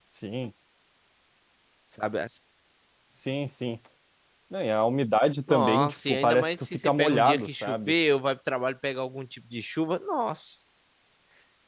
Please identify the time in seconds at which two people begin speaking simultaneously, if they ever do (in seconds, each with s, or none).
5.5 s